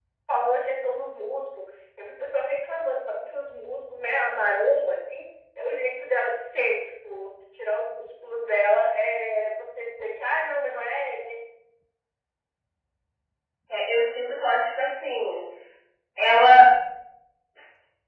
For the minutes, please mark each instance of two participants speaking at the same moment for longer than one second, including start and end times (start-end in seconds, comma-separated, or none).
none